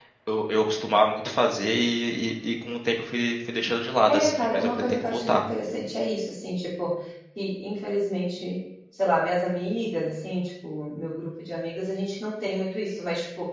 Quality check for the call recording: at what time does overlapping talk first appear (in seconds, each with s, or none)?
4.1 s